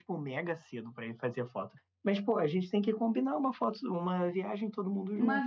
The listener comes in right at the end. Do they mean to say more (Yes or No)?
Yes